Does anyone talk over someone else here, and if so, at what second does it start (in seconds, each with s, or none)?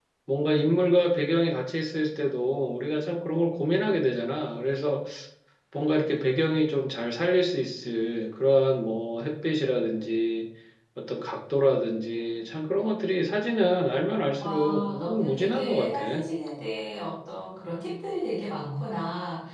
14.4 s